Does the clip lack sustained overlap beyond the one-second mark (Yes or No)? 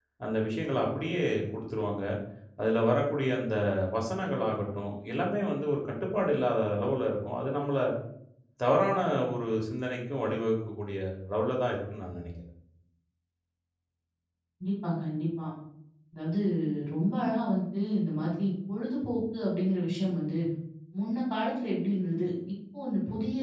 Yes